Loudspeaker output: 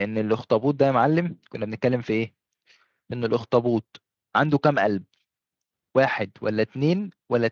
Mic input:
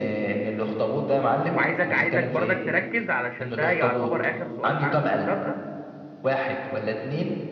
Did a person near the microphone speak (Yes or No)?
Yes